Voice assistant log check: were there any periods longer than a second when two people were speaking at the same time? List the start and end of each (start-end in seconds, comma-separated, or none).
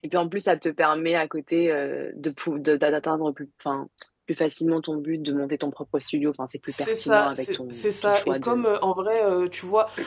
6.8-8.7